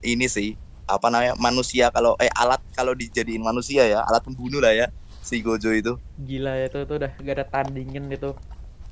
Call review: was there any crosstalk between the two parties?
No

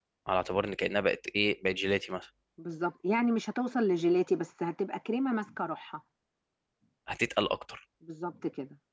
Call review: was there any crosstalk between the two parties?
No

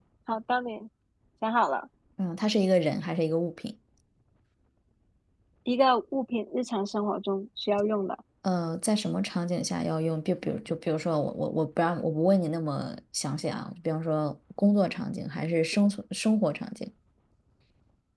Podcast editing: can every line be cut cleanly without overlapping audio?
Yes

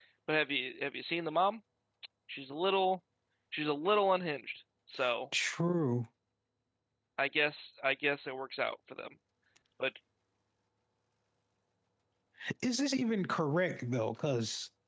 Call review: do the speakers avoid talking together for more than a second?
Yes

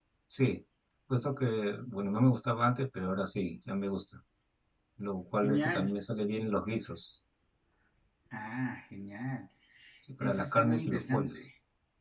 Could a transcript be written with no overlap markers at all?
No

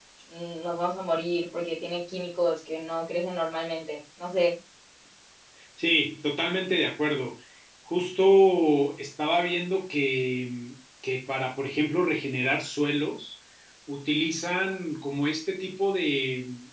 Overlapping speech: No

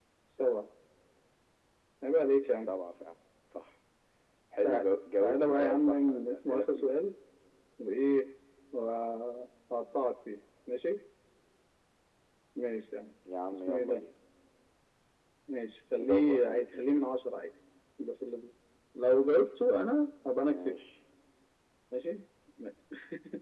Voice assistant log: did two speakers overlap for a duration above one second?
Yes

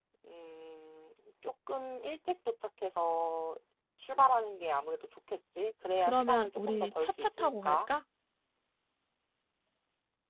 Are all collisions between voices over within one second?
No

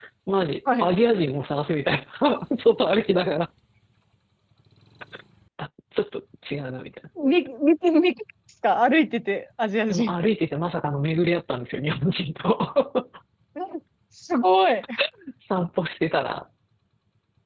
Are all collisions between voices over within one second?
Yes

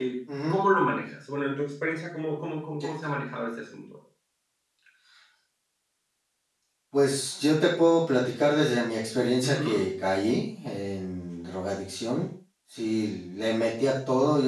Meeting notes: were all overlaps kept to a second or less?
Yes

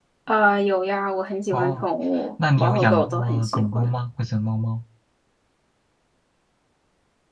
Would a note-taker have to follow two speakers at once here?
Yes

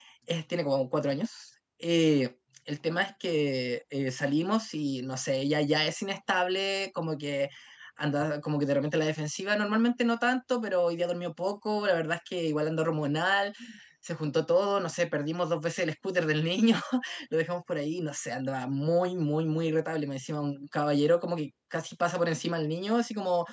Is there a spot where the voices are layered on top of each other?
No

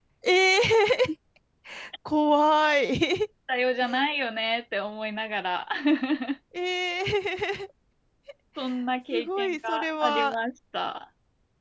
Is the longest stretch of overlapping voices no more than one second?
No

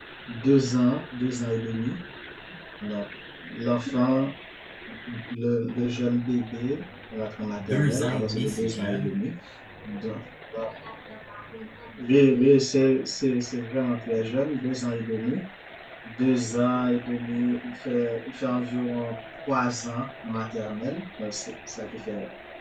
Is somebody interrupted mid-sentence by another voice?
Yes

